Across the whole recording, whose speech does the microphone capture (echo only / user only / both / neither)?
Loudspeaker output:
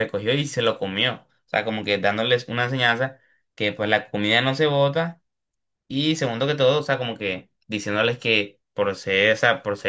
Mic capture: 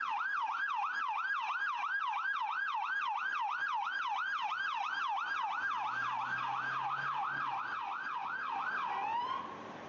neither